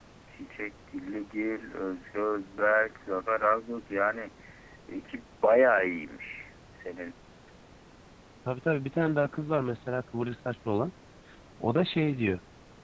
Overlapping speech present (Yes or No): No